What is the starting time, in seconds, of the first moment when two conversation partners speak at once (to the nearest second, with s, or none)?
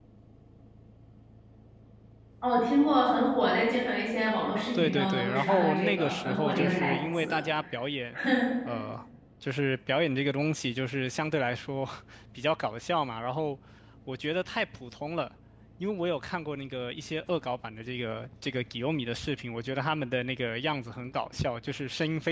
5 s